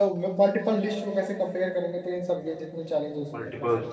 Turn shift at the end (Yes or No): Yes